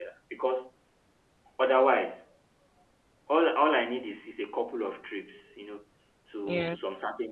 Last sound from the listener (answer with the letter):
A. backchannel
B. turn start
A